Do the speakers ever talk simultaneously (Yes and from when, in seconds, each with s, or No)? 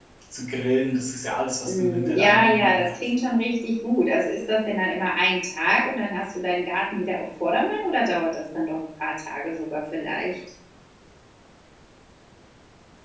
Yes, from 1.6 s